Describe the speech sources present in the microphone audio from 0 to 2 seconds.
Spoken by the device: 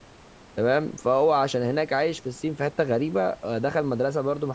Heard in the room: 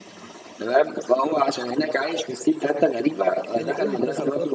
echo only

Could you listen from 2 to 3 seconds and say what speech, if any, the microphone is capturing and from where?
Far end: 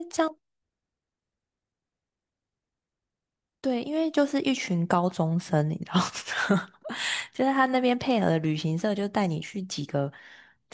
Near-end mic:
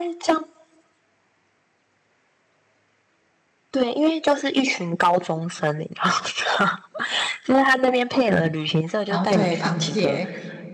neither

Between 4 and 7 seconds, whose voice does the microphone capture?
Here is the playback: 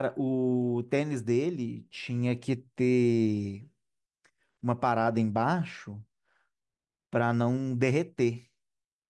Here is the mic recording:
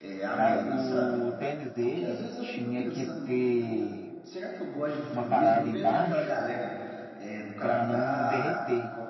both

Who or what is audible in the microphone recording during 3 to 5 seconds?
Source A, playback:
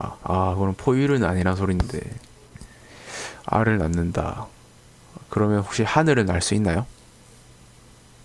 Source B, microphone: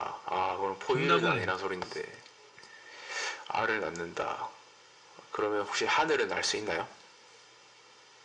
echo only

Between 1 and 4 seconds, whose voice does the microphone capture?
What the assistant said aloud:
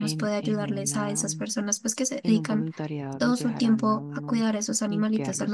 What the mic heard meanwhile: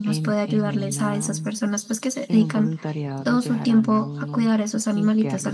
echo only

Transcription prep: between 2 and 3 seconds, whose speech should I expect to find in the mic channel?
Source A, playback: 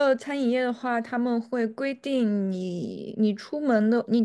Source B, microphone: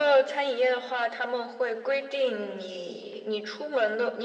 echo only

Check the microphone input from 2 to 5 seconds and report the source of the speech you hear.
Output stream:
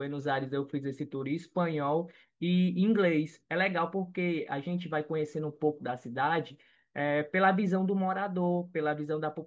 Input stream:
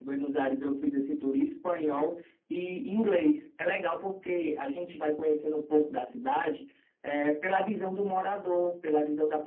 echo only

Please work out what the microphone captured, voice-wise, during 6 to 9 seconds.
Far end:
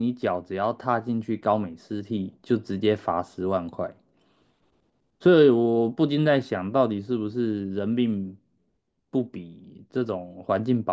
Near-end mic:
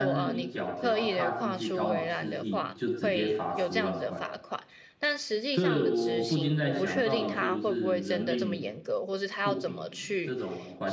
both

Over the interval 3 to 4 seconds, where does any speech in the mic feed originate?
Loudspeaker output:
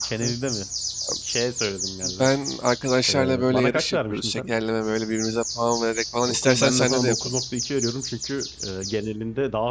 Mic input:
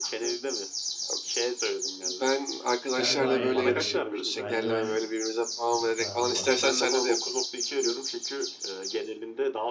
both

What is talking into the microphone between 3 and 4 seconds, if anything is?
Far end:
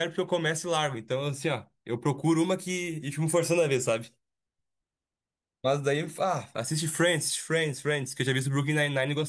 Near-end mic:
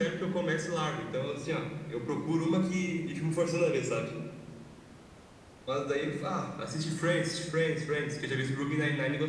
echo only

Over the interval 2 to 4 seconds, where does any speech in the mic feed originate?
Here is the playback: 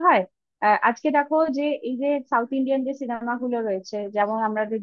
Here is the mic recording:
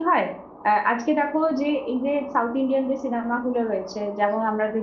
echo only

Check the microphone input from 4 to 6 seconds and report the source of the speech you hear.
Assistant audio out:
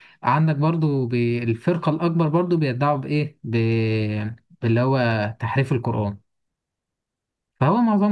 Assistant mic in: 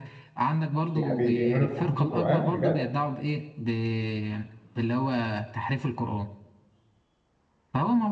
echo only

